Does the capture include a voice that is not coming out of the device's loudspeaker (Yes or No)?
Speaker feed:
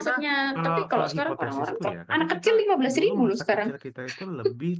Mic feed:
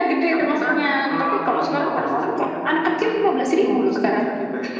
No